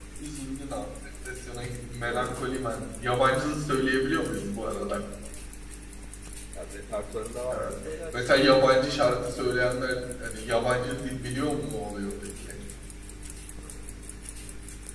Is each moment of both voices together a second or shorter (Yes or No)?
Yes